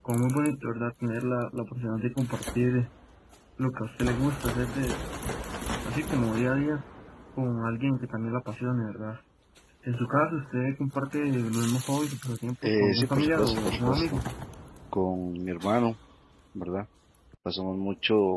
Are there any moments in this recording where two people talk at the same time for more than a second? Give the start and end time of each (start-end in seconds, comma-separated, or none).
12.6-14.2